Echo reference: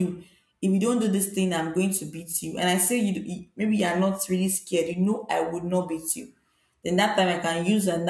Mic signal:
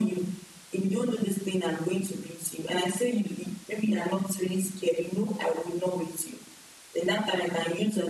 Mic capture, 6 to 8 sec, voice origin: echo only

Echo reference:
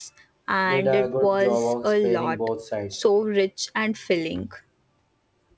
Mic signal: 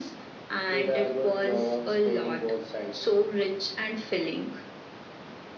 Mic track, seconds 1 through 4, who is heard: echo only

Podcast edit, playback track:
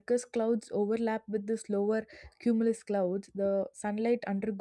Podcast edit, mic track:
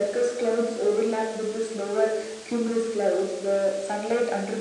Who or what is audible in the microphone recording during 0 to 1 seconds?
echo only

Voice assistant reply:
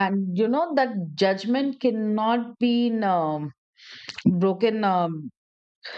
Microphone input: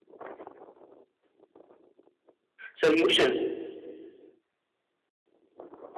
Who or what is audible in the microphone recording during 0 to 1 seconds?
neither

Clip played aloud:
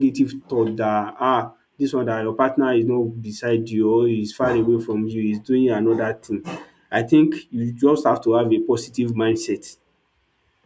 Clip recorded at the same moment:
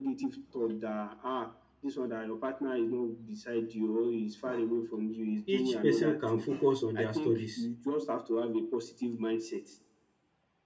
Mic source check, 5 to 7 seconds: both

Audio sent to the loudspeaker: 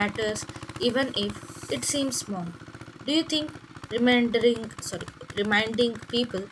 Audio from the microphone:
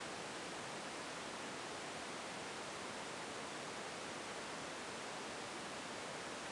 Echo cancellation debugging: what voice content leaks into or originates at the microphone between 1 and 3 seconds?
neither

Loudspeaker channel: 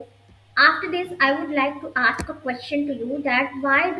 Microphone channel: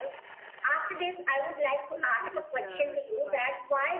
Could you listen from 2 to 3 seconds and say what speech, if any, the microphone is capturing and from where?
both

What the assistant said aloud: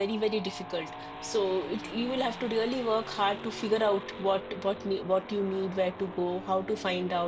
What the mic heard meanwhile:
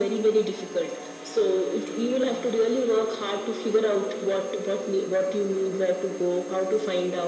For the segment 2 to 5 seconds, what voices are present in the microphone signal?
echo only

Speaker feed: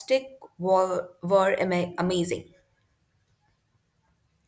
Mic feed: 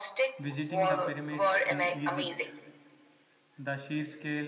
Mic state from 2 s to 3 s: both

